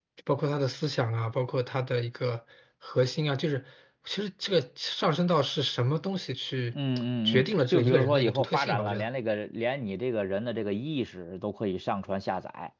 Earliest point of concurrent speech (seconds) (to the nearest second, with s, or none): 7 s